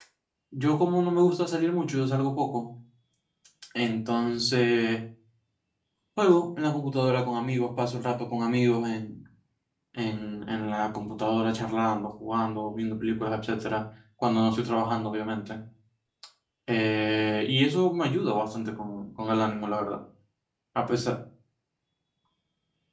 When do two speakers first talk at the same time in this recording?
none

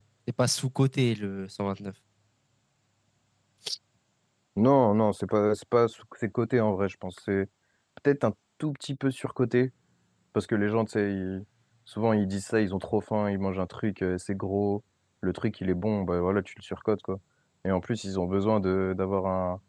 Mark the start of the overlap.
none

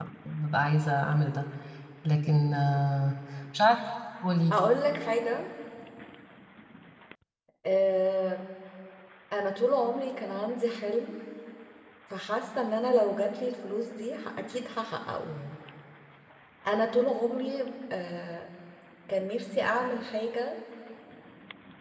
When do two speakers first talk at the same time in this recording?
none

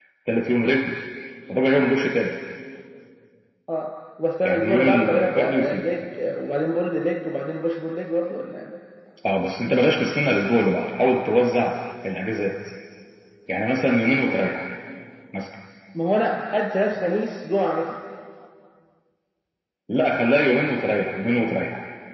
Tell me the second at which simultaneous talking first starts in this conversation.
4.4 s

